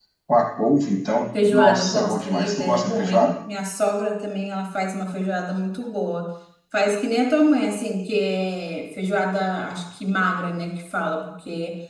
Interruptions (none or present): present